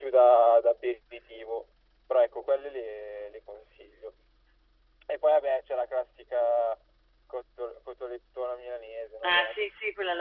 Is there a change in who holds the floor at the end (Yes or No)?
Yes